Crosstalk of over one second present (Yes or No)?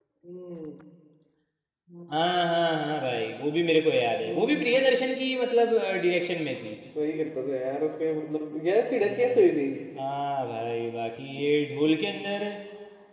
No